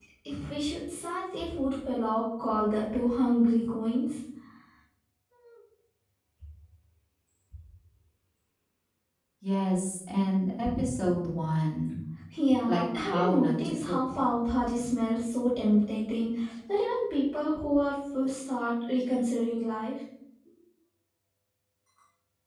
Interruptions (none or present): present